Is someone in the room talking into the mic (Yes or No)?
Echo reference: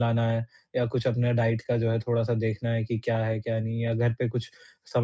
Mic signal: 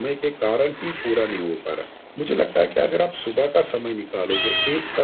Yes